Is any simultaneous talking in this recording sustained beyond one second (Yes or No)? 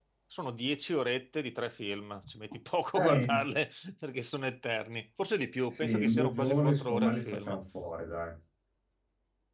Yes